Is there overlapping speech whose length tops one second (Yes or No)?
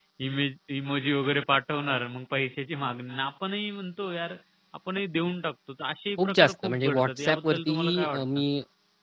Yes